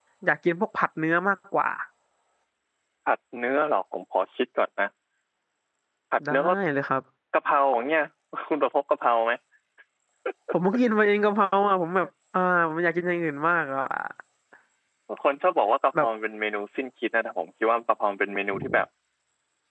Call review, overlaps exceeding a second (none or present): none